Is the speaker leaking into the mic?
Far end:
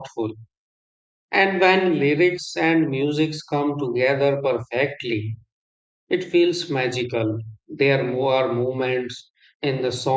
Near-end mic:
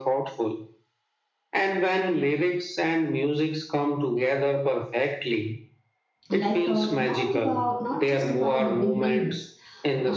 Yes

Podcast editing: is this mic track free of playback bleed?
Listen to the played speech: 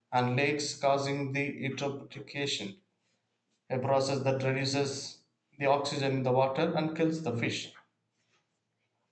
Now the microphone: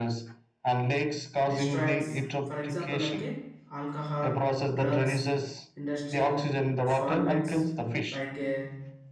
No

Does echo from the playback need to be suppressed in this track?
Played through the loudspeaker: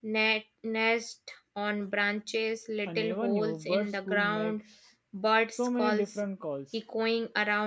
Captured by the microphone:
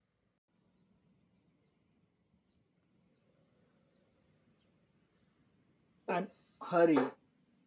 No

